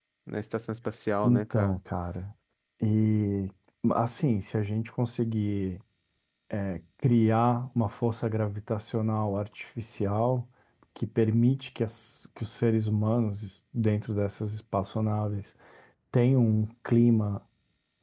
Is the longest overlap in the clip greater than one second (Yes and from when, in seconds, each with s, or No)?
No